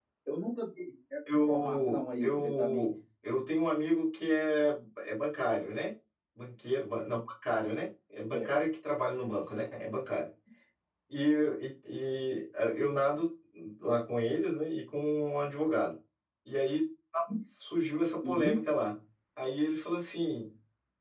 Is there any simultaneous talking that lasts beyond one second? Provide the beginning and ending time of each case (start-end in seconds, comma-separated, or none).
1.5-2.9